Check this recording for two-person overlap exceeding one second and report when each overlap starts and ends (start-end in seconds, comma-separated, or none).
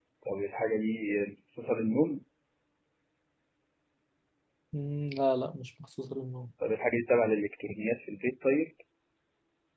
none